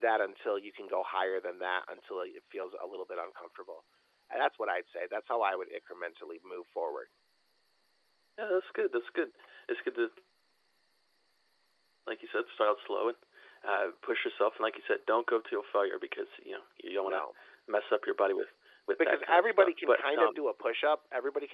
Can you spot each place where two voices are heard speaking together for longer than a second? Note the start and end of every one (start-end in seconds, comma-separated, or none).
19.0-20.4